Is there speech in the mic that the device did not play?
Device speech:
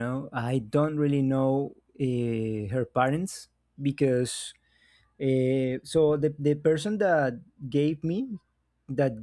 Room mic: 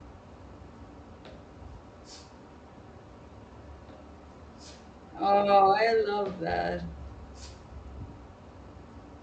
Yes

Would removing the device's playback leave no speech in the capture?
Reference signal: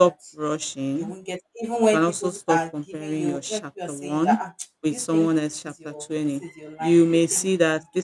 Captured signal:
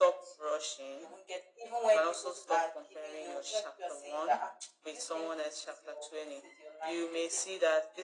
Yes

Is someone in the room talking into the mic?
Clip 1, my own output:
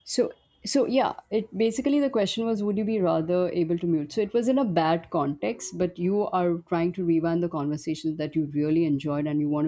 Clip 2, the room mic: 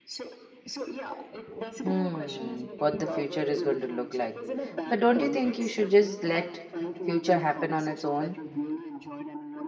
Yes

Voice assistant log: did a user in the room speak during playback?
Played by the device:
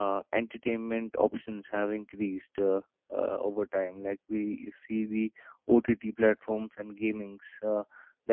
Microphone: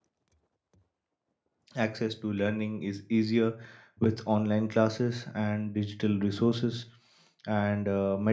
Yes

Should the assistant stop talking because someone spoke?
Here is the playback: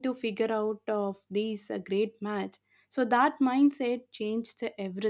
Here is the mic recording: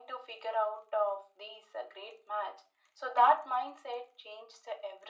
No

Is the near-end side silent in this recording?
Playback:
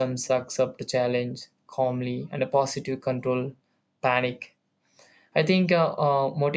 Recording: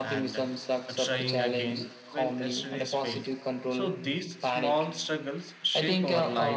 No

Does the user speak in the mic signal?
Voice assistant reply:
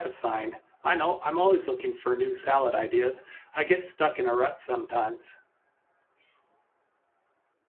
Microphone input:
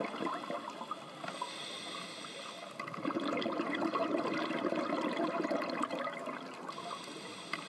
No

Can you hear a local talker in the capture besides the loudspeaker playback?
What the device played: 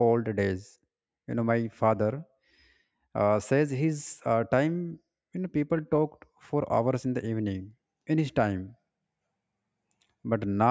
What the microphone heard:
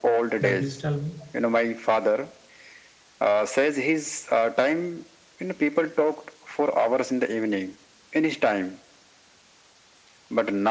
Yes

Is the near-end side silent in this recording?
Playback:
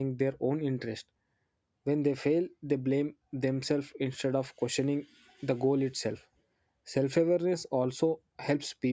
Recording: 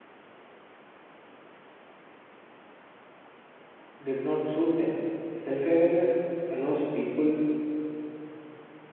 No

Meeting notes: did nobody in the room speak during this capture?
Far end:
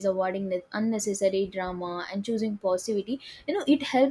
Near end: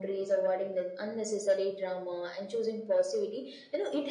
Yes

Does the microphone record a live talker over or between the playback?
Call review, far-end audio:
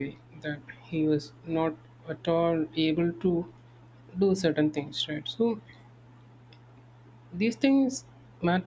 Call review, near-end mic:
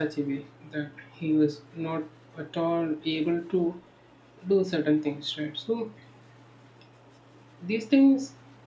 No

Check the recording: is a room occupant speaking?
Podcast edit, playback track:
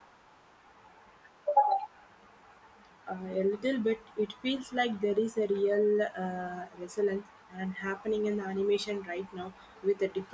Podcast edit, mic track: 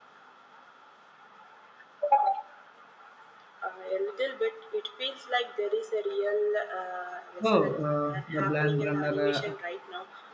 Yes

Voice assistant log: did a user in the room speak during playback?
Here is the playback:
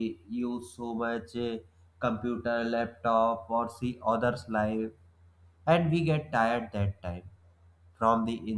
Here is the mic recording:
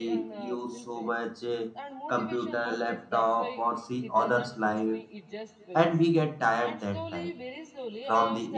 Yes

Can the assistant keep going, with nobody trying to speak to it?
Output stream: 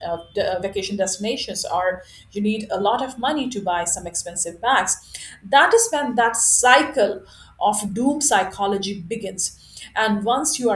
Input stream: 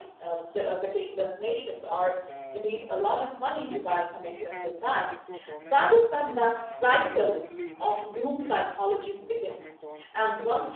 No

